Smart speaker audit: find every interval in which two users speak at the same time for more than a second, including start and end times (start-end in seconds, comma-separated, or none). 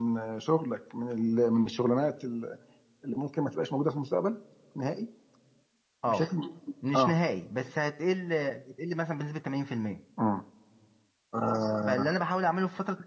none